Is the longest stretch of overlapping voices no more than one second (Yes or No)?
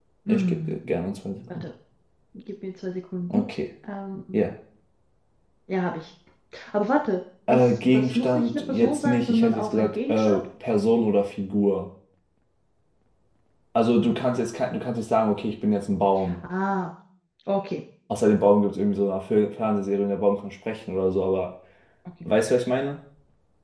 No